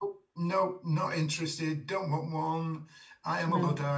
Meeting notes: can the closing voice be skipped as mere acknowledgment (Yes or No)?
Yes